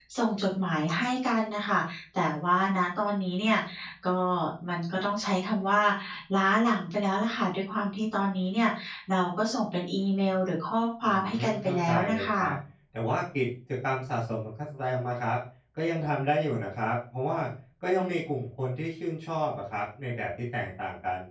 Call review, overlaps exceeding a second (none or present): present